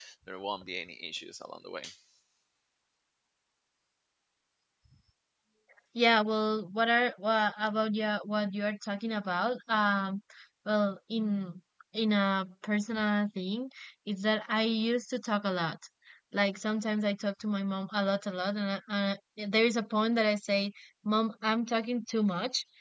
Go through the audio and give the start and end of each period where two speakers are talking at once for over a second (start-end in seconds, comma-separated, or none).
none